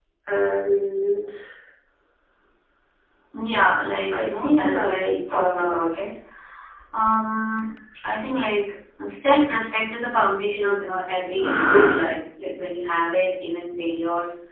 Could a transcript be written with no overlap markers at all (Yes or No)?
No